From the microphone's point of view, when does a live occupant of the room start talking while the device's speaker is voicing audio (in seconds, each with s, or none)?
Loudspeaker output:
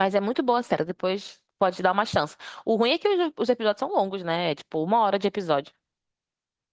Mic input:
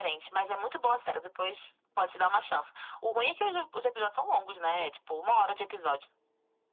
none